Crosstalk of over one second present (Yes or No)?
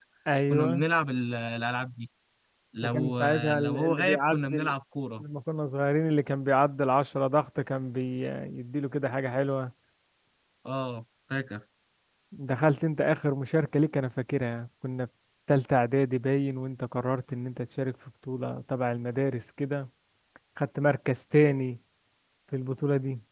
Yes